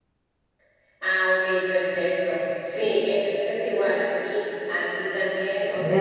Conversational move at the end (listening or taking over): listening